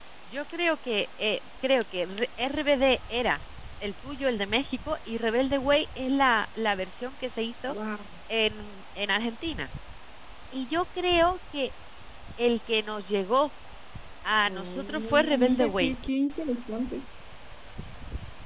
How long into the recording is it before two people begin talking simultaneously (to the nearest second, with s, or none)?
14 s